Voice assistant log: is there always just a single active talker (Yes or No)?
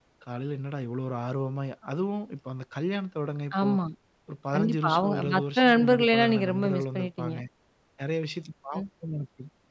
No